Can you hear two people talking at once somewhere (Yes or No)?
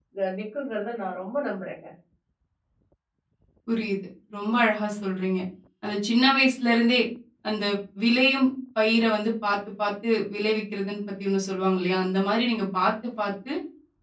No